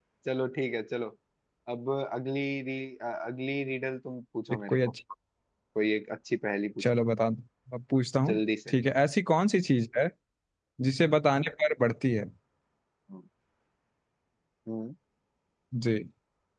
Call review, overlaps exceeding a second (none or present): none